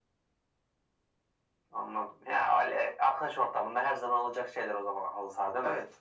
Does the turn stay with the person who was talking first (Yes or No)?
No